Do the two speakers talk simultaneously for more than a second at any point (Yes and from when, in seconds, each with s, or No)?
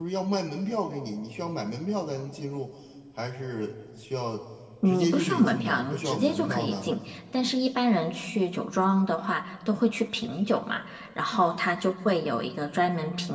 Yes, from 5.0 s